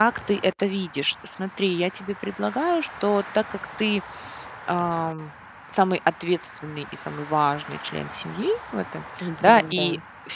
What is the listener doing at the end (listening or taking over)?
listening